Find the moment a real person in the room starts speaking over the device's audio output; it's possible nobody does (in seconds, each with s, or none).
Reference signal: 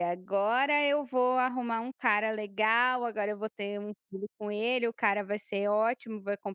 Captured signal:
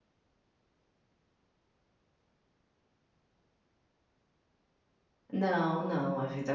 5.3 s